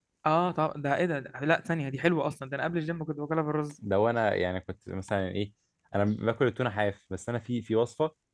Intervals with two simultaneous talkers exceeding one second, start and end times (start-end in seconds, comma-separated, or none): none